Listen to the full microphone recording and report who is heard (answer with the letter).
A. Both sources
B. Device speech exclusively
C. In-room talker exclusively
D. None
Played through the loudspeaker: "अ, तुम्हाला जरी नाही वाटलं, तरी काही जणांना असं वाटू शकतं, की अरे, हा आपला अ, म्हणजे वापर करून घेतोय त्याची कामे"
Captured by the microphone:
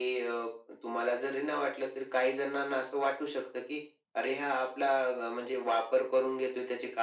B